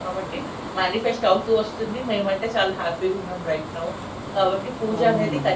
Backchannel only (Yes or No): Yes